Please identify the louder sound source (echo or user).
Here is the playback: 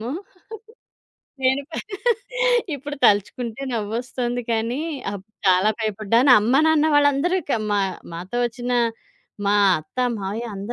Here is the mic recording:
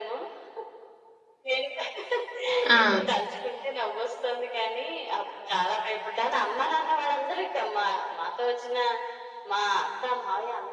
user